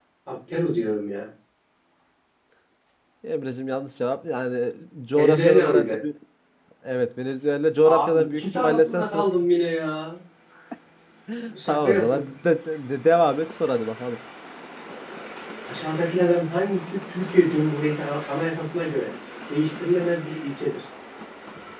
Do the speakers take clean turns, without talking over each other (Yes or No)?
No